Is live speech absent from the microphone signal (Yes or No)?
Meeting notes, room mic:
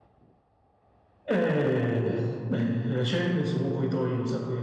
No